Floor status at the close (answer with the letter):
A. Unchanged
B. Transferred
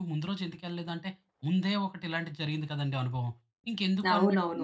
B